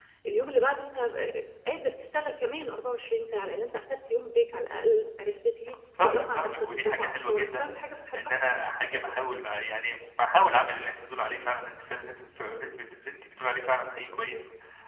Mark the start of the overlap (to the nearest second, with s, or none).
6 s